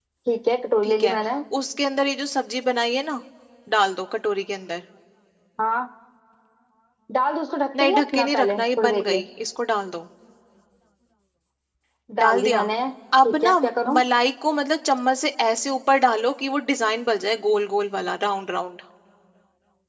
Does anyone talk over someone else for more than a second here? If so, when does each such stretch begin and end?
7.8-9.2

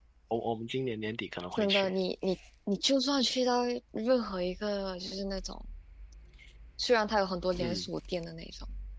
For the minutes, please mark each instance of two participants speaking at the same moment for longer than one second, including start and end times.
none

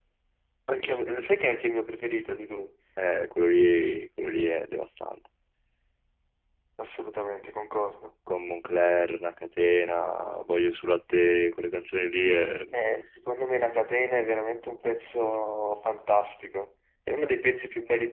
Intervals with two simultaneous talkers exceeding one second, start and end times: none

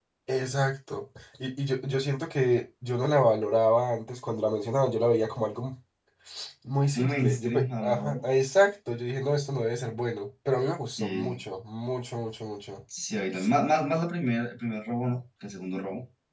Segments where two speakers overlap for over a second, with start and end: 7.0-8.3

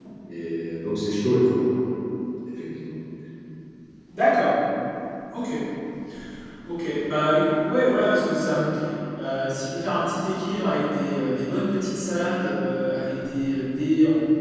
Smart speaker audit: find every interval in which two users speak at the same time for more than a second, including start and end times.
none

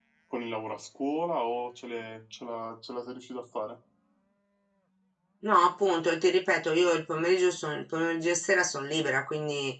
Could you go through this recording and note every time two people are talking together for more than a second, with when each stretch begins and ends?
none

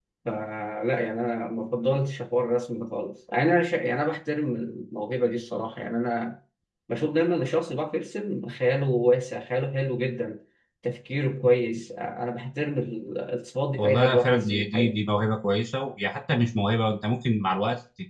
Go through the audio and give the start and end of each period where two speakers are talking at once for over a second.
13.7-15.0

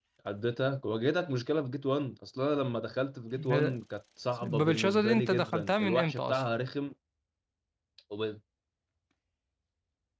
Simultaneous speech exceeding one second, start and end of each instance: 4.4-6.4

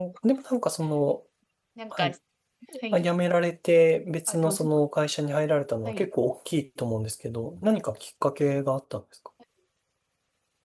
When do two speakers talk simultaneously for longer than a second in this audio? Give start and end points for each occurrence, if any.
none

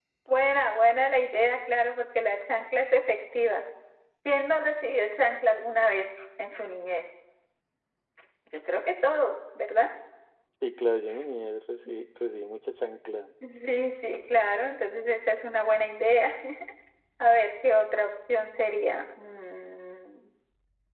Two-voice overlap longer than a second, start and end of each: none

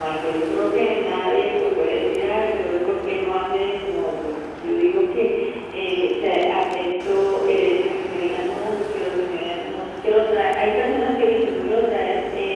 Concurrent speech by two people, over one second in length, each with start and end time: none

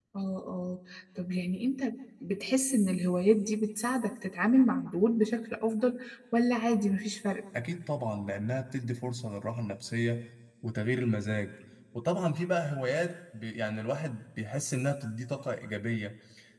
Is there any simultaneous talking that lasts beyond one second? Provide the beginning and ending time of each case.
none

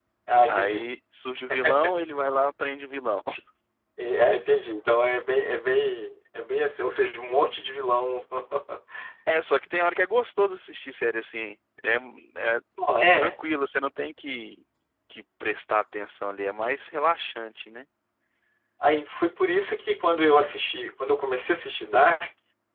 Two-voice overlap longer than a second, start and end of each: none

